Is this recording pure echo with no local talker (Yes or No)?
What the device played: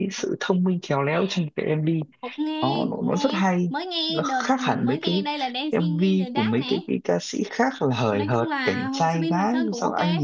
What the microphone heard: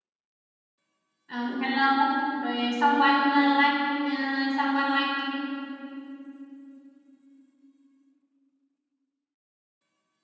No